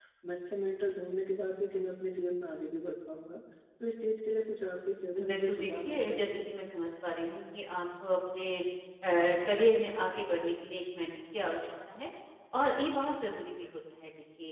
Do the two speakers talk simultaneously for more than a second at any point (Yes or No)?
Yes